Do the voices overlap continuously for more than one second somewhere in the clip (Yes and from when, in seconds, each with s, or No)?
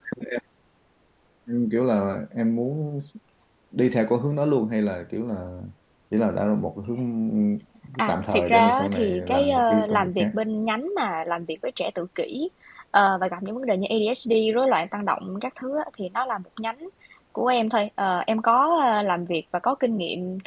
Yes, from 8.1 s